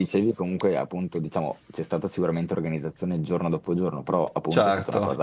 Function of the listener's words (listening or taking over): listening